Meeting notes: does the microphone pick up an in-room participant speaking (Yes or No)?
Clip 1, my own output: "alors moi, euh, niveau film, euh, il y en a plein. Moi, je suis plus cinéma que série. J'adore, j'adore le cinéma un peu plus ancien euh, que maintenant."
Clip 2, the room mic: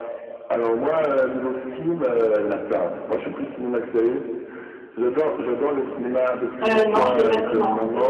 Yes